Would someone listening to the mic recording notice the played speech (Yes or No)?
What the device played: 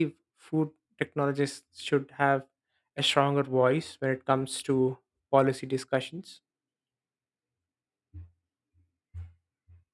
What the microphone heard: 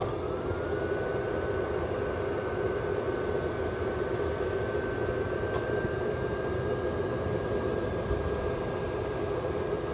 No